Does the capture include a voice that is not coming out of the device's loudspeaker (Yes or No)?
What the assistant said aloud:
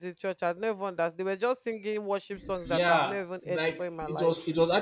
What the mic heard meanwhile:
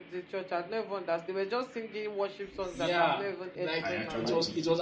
Yes